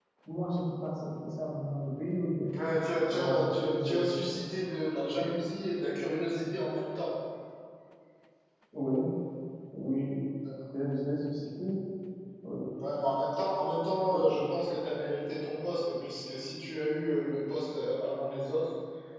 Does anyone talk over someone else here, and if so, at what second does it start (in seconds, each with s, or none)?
3.1 s